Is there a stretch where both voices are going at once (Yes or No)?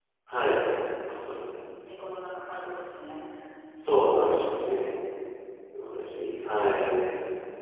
No